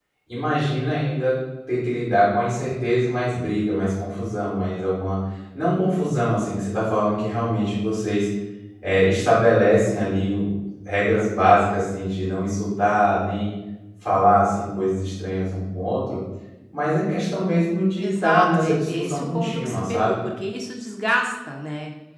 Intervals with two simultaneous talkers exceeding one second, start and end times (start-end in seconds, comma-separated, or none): 18.0-20.2